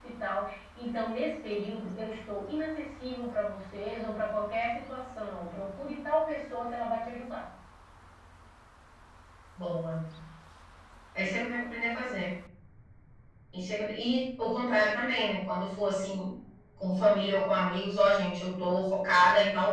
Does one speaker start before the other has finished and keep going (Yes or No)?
No